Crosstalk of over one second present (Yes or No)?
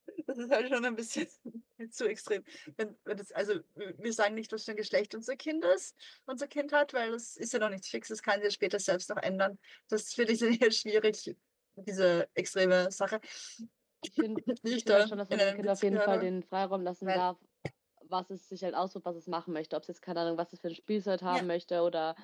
Yes